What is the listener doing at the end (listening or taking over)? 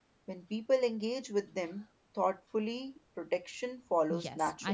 taking over